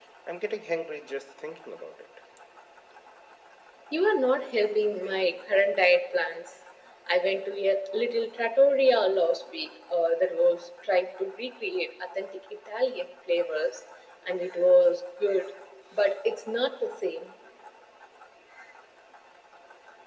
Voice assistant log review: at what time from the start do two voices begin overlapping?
none

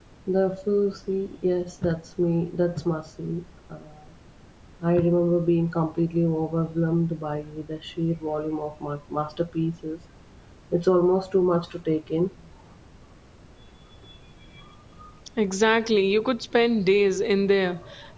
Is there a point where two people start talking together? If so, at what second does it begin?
none

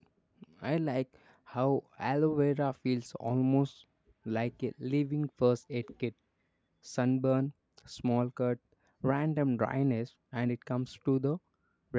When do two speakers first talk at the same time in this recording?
none

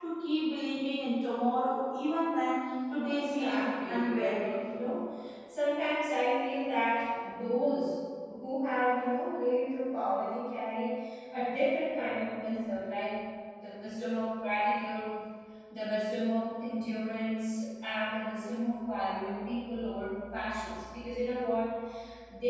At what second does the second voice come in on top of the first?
3.0 s

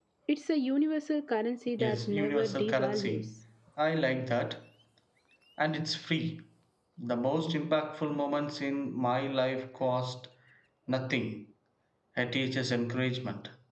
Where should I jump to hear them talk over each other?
1.8 s

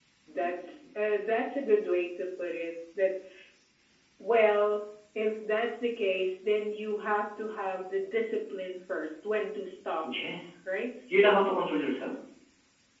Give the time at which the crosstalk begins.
none

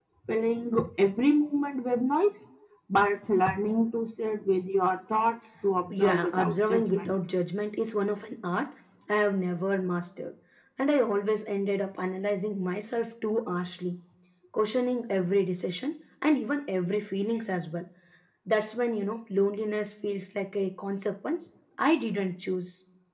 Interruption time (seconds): 5.9 s

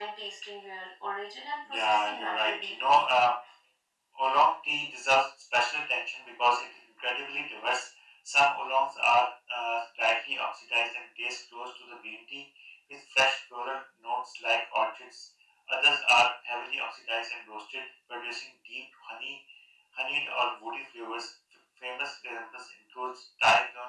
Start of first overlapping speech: 1.6 s

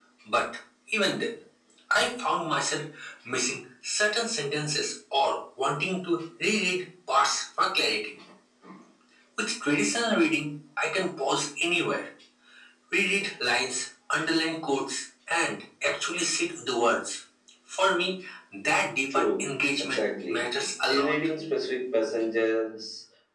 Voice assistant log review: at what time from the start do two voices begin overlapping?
19.1 s

